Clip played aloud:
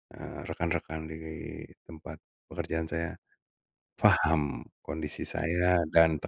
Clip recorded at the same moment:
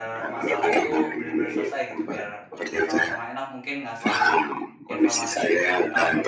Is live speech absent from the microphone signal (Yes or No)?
No